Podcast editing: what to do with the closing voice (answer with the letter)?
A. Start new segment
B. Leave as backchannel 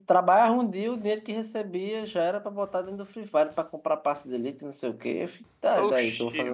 A